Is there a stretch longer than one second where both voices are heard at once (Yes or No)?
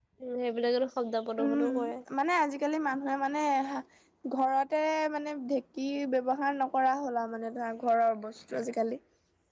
No